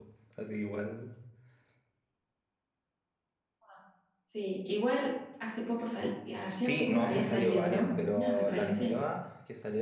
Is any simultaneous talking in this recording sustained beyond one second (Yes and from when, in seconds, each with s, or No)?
Yes, from 6.4 s